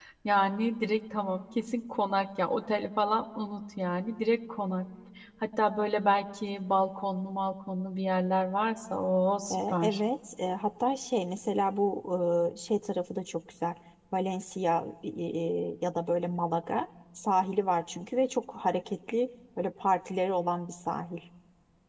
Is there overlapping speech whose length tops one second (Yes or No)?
No